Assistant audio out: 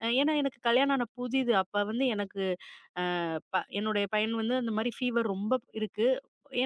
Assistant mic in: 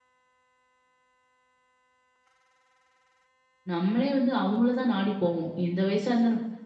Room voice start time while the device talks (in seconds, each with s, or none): 3.7 s